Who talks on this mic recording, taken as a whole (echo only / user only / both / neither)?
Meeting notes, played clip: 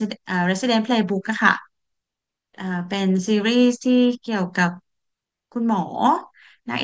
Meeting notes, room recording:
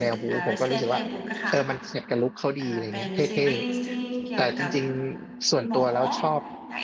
both